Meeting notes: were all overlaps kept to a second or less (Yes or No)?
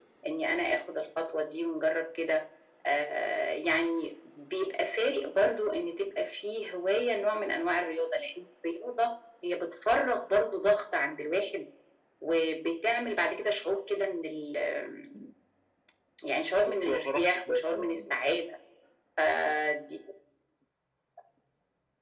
No